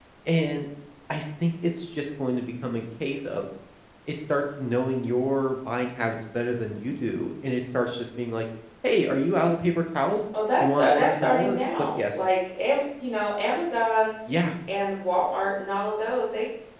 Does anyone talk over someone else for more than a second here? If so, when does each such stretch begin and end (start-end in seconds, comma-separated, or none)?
10.6-12.2